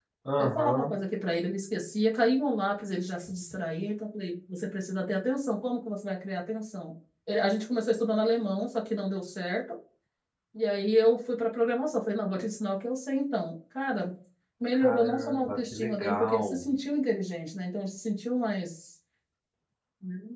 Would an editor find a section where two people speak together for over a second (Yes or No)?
Yes